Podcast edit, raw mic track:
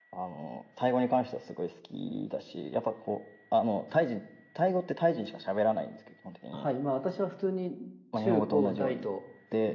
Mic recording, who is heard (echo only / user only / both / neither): both